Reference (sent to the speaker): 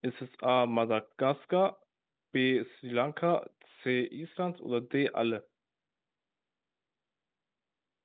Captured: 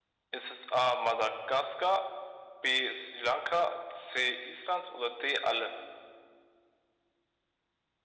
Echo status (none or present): present